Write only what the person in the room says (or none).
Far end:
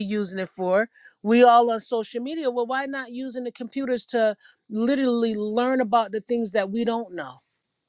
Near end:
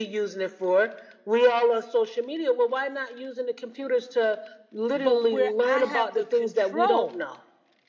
But where I have the control